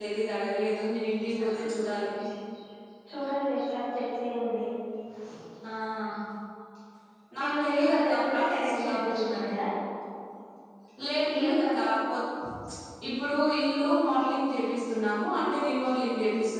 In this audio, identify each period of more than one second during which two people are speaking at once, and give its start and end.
7.4-9.5

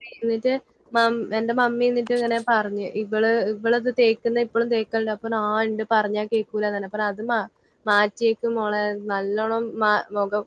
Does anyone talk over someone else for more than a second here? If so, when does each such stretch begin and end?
none

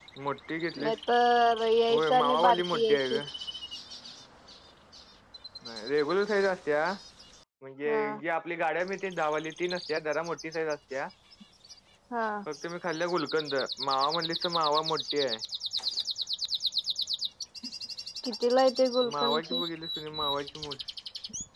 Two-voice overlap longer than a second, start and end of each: 1.9-3.2

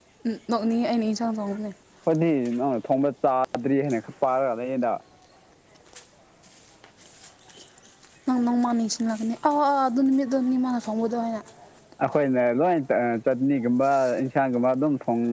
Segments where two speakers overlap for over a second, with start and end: none

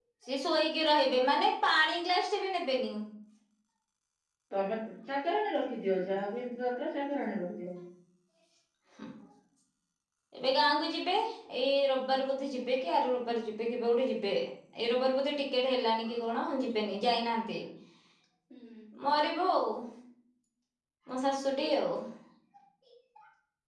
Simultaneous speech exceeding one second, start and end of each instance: none

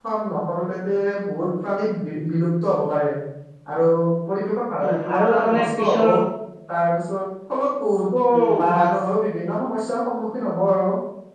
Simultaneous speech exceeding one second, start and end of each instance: 4.8-6.0

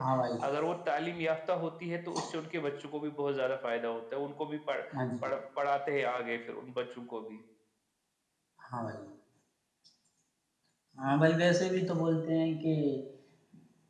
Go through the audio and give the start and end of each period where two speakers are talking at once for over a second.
none

